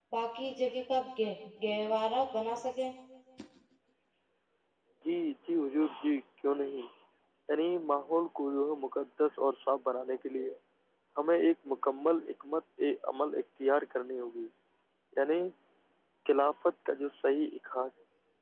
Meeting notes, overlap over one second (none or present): none